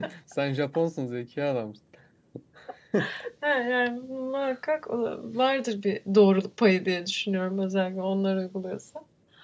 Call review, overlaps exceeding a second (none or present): none